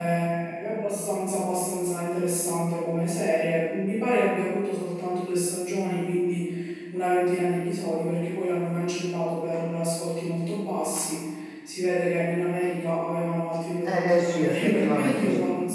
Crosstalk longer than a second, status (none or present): present